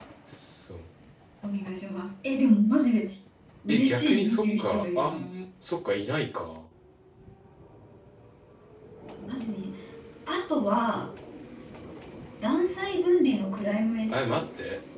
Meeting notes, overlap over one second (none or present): present